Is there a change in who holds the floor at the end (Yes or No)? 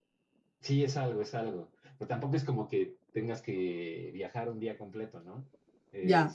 No